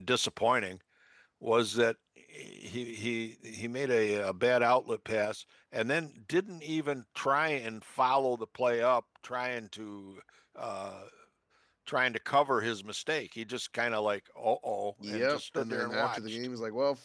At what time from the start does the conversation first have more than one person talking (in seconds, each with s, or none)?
15.0 s